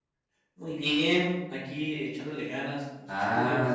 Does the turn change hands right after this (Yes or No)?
Yes